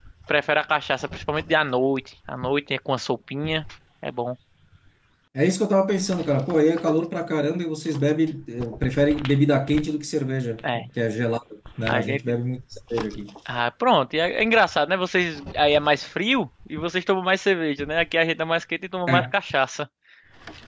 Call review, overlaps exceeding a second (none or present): none